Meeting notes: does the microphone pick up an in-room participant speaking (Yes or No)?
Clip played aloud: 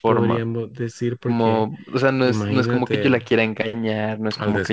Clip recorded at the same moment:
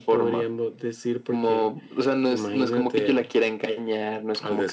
No